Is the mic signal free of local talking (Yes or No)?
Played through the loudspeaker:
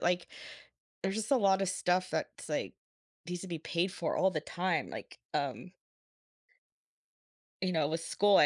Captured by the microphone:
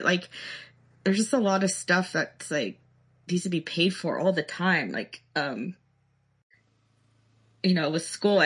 Yes